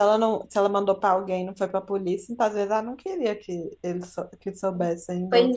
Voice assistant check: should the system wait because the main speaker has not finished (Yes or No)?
No